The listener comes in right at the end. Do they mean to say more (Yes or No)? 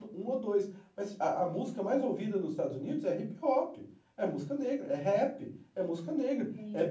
No